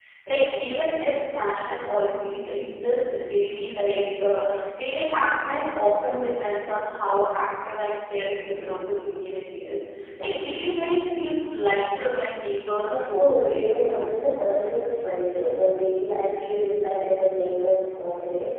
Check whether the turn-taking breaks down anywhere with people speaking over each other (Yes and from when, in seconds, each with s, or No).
Yes, from 12.9 s